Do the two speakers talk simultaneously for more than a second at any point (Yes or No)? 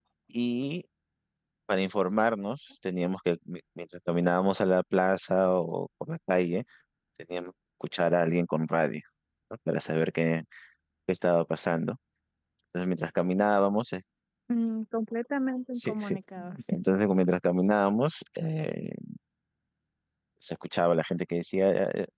No